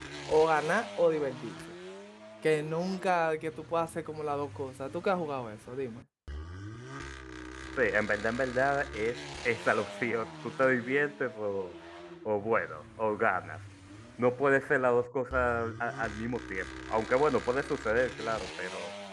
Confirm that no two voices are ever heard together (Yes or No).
Yes